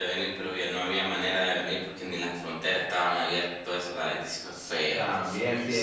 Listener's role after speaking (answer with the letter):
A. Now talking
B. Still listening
A